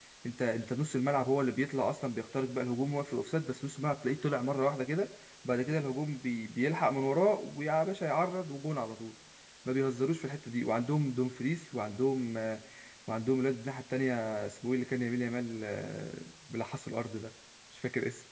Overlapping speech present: No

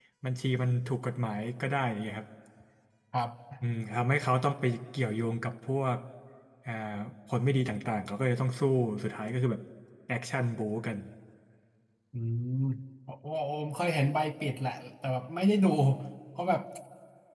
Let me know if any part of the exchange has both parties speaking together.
No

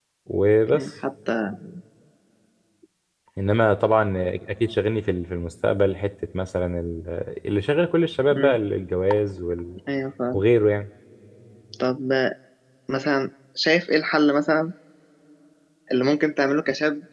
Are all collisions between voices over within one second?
Yes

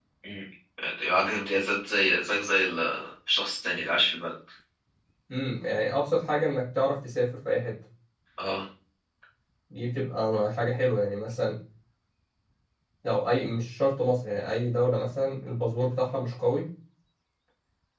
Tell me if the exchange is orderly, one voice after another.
Yes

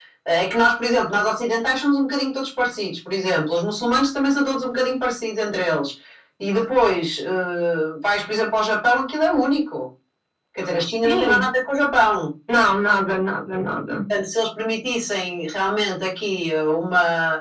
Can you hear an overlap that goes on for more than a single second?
No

